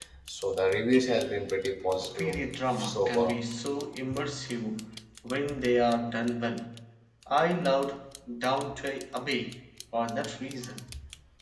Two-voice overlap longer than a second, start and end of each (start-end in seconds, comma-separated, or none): 2.0-3.4